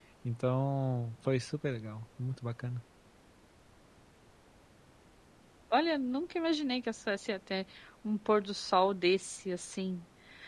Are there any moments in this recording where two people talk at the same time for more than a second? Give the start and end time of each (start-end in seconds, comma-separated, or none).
none